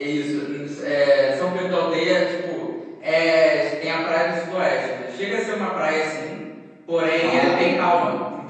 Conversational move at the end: listening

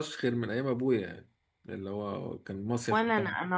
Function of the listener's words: taking over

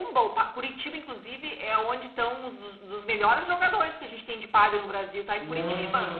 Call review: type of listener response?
taking over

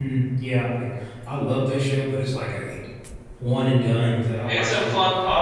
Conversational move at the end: taking over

